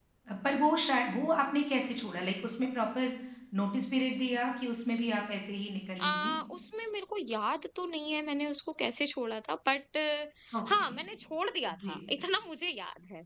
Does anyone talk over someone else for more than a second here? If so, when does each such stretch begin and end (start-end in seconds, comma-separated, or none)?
none